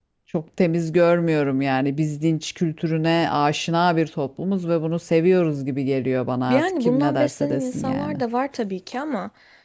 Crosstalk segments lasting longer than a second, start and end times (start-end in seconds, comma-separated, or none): 6.5-8.2